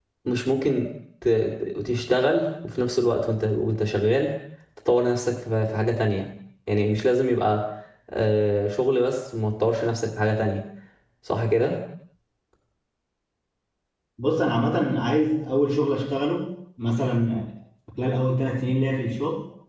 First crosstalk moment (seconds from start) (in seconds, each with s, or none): none